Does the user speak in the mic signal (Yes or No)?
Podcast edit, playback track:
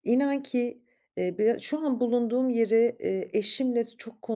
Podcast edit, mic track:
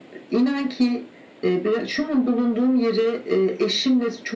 No